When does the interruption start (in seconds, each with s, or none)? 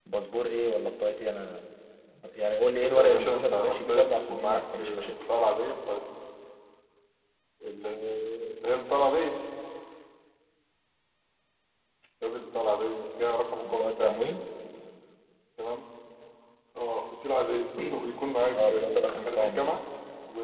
2.8 s